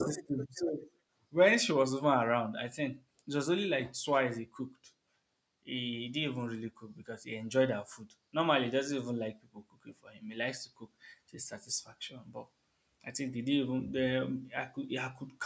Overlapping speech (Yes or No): No